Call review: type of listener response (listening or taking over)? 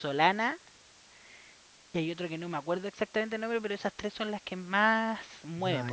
taking over